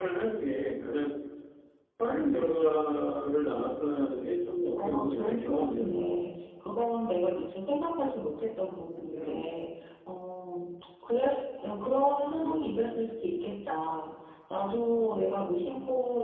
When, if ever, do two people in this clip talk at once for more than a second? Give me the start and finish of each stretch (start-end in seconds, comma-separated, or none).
4.8-6.1